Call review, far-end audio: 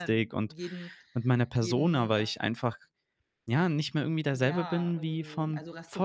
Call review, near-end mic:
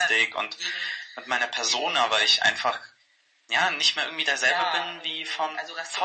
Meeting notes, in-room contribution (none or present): none